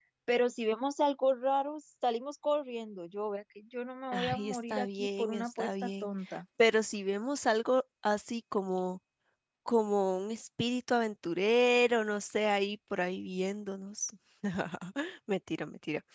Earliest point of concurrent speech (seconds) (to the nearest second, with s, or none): 4 s